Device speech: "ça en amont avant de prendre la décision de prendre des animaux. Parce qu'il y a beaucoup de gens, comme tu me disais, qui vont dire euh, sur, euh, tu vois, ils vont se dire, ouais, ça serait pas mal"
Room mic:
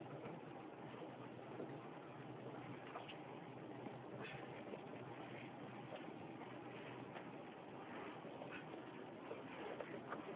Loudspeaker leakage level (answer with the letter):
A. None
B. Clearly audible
A